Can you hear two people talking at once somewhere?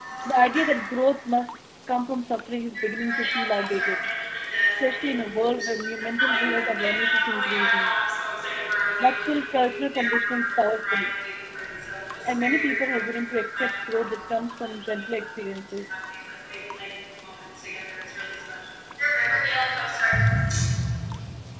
Yes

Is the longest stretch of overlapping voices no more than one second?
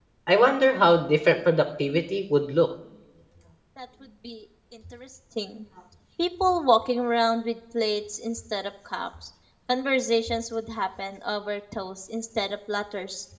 Yes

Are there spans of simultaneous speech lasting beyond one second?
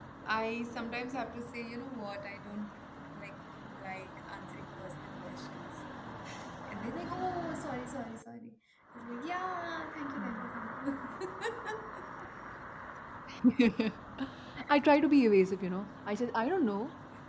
No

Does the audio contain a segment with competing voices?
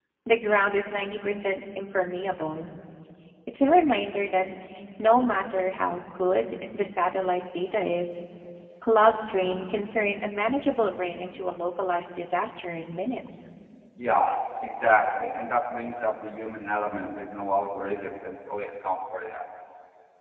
No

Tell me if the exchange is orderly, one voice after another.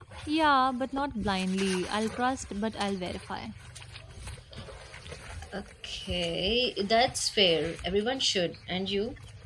Yes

